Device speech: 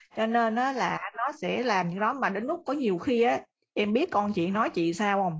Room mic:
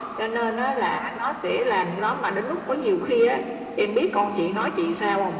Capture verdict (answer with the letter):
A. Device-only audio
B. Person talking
A